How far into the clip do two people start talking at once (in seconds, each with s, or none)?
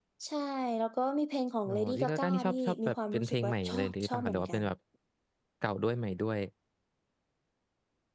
1.7 s